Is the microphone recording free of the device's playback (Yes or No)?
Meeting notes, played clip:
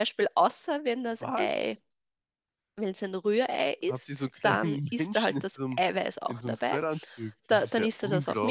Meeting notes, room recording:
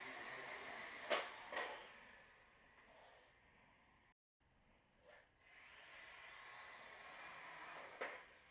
Yes